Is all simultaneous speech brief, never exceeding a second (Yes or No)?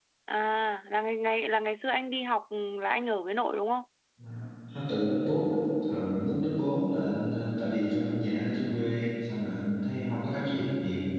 Yes